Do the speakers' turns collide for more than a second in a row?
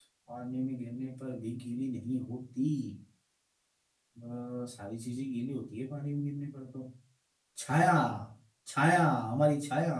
No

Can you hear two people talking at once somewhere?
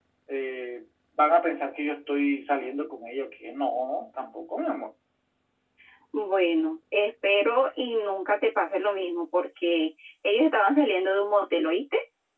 No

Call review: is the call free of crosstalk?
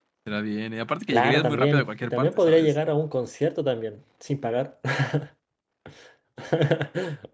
No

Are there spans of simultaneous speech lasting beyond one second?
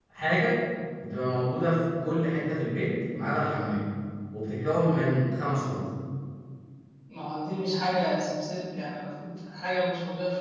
No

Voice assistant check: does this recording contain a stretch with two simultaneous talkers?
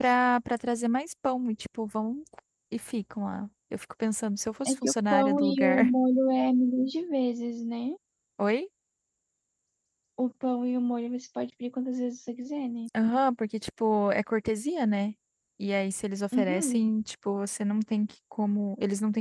Yes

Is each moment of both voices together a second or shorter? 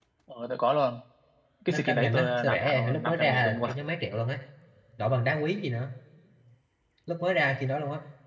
No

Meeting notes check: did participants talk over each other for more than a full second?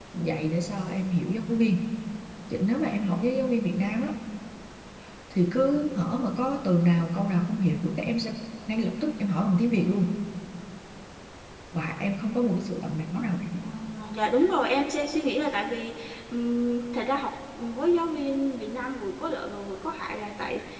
No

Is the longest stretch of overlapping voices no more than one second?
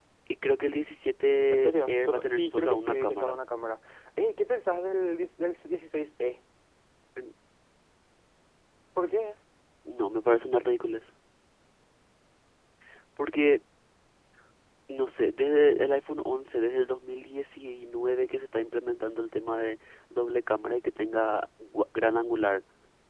No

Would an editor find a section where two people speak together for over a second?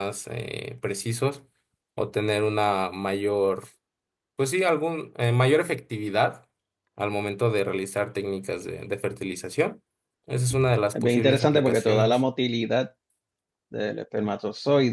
Yes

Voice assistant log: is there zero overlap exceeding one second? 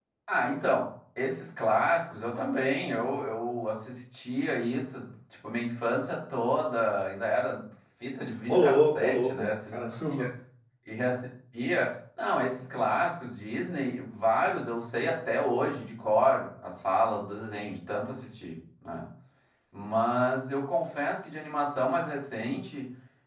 No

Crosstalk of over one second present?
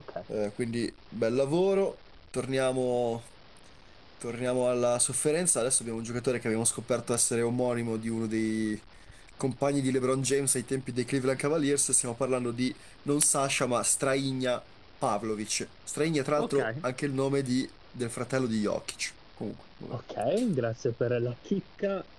No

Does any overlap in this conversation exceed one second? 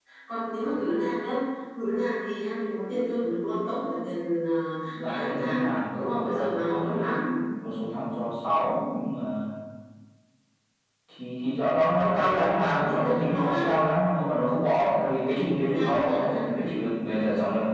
Yes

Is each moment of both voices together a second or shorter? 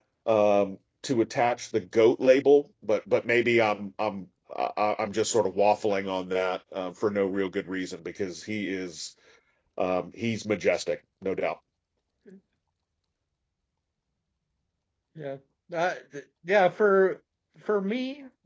Yes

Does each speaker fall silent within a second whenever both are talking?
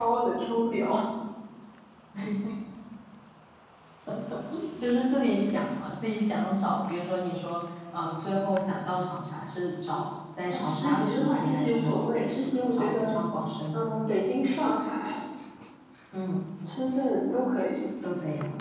No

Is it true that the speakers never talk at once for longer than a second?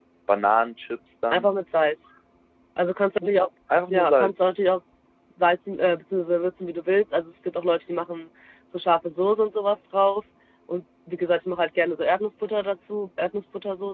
Yes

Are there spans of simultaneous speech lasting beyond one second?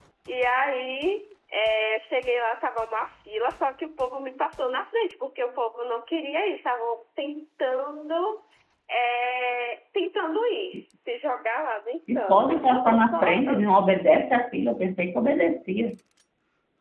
Yes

